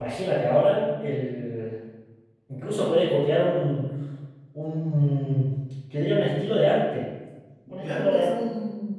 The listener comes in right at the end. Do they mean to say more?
Yes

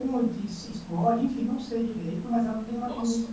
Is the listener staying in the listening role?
Yes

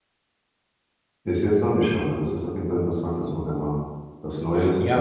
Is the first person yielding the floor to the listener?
Yes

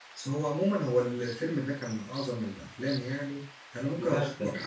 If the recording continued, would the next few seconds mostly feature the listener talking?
No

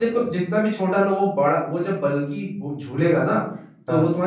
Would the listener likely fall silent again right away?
Yes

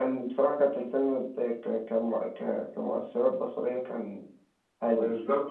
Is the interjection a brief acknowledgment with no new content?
No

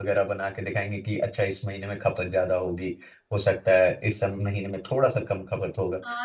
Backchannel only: No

